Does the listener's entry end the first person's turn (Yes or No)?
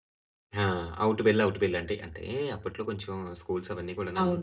Yes